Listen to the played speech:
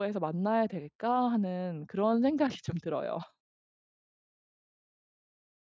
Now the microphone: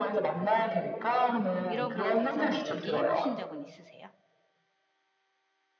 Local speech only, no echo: 이런 거에 대해서 한번 얘기해 보신 적은 있으세요?

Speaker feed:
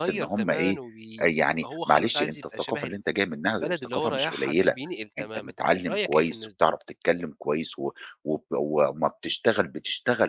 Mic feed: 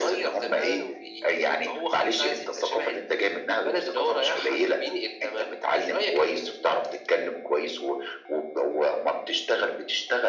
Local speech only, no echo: none

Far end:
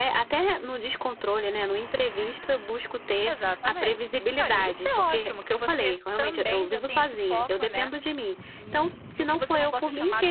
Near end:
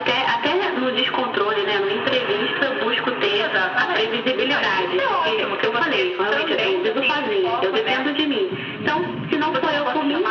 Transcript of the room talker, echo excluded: none

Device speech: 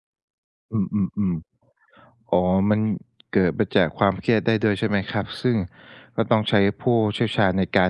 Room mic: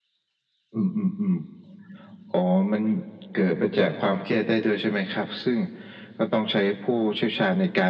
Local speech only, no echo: none

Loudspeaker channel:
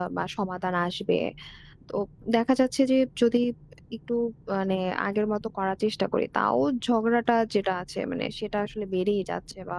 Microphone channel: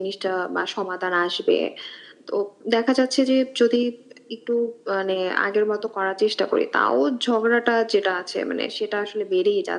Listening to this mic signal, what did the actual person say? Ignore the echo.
none

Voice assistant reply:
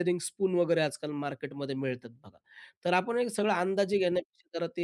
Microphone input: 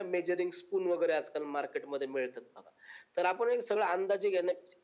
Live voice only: none

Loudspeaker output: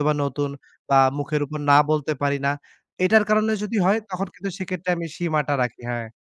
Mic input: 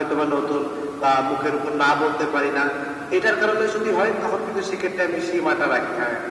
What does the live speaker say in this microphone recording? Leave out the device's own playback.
none

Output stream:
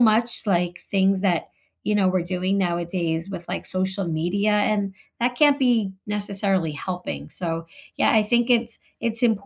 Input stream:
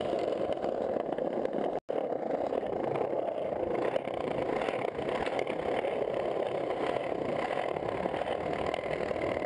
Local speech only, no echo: none

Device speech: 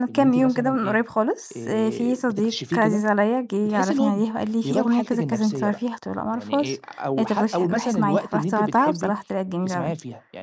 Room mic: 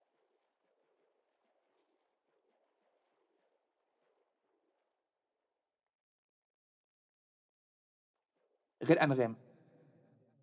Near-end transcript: غير أنغام؟

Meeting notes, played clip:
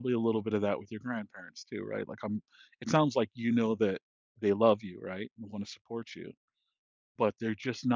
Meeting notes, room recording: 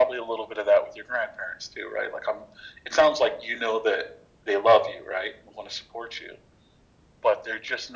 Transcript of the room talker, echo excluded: none

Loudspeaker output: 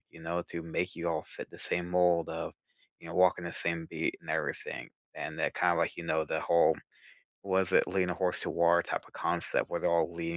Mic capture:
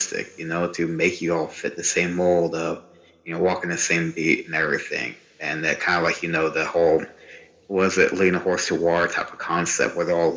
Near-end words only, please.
none

